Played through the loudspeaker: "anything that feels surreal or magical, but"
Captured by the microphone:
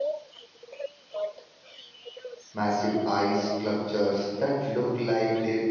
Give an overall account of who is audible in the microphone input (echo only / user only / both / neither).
both